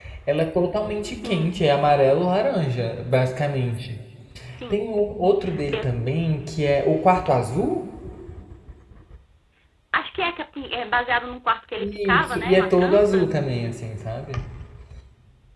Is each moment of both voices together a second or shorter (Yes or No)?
No